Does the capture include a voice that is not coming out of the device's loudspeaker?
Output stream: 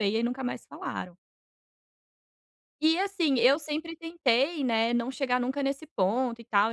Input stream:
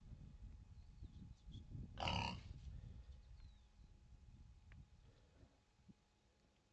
No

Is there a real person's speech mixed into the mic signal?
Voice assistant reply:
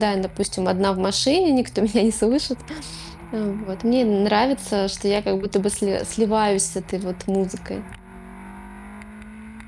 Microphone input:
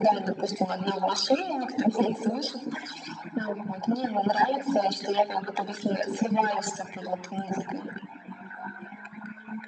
No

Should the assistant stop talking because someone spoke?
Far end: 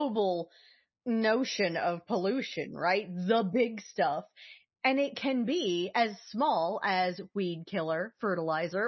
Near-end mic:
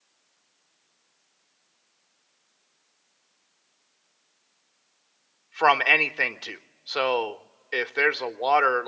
Yes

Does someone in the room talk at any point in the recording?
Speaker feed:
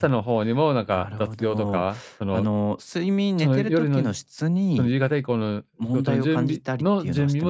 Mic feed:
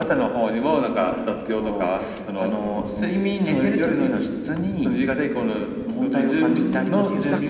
Yes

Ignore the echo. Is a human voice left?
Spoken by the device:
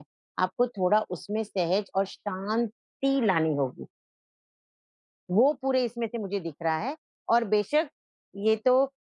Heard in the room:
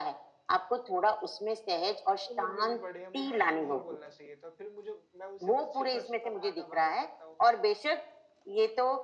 Yes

